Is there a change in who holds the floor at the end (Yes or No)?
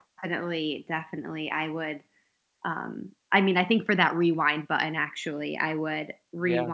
No